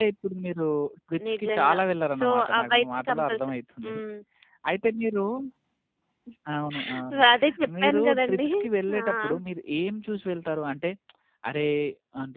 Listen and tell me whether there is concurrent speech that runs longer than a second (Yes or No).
Yes